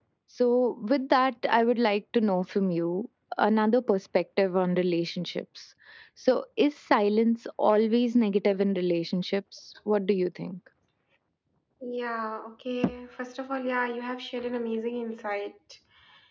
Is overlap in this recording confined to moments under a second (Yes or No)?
Yes